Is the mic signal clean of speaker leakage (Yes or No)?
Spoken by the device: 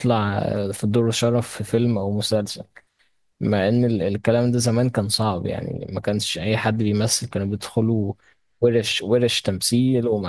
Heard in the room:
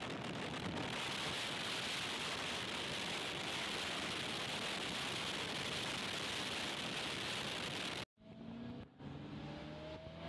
Yes